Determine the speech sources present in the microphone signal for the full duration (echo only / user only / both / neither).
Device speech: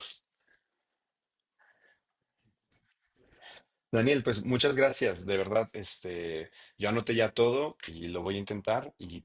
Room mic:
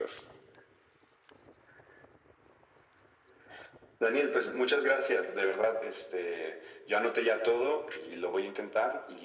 echo only